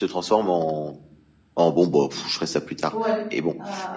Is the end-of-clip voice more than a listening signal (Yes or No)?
Yes